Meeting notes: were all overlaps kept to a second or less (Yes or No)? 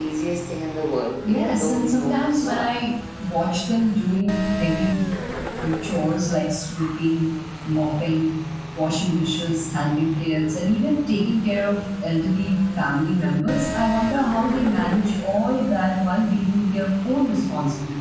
No